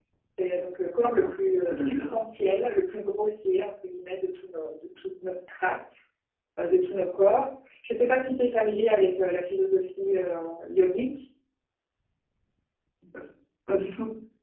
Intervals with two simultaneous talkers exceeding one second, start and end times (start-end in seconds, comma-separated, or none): 1.0-2.2